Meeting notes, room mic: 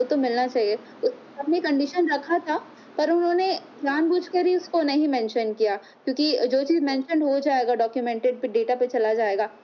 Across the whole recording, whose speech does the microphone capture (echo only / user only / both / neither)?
echo only